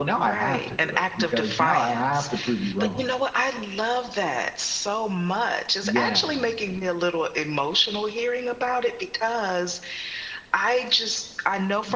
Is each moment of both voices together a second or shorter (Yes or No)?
No